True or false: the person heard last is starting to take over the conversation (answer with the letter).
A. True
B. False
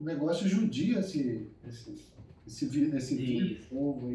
A